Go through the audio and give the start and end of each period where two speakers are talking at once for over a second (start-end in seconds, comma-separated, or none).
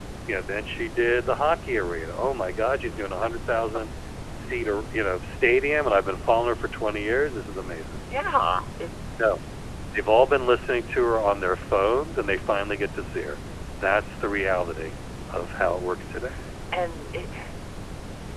none